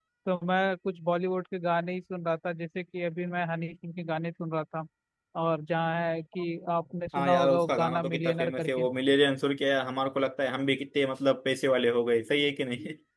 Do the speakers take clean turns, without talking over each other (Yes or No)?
No